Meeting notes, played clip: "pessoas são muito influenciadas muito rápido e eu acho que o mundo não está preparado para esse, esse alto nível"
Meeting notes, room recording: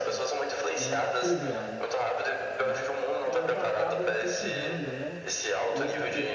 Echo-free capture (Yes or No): No